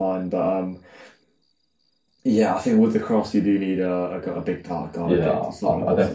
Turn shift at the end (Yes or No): Yes